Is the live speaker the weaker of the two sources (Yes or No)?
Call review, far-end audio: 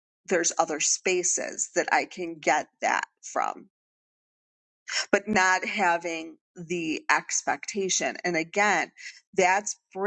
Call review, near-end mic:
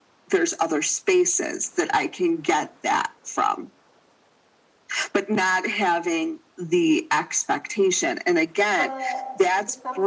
Yes